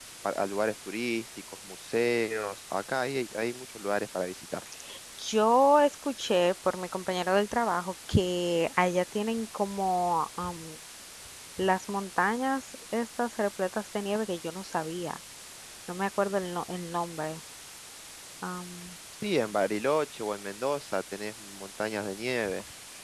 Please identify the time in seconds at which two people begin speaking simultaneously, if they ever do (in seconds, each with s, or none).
none